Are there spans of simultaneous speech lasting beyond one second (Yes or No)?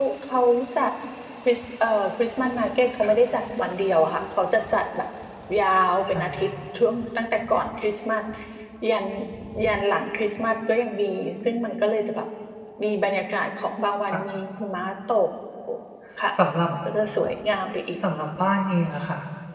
No